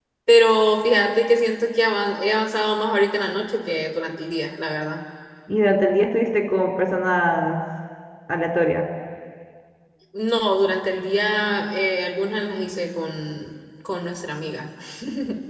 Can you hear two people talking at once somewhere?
No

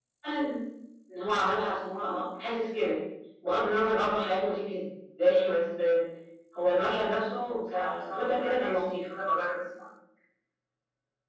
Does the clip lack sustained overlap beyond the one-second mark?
No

